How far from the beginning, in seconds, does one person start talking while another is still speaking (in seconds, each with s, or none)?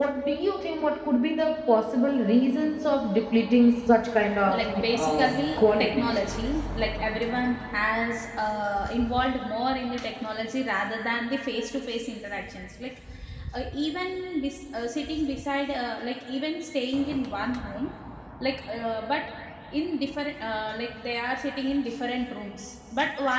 4.5 s